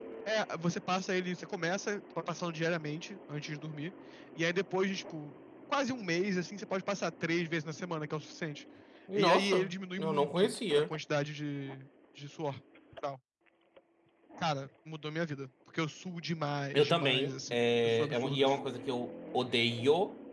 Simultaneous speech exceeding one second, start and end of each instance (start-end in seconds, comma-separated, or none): 9.2-10.9, 16.7-18.6